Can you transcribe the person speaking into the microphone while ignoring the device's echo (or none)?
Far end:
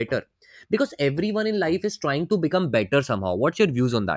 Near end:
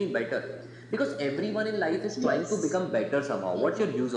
Yes, exactly,